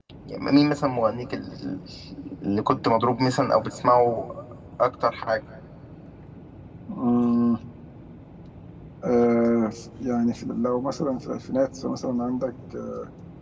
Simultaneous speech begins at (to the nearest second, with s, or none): none